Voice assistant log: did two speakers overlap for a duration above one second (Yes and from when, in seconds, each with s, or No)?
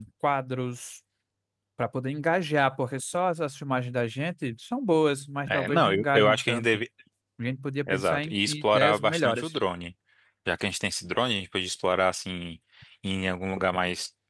Yes, from 5.5 s